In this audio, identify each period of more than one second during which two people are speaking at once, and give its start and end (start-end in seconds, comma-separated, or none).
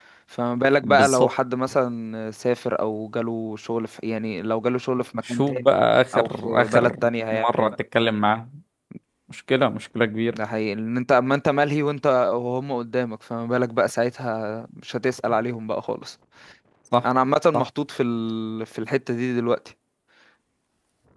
6.1-7.7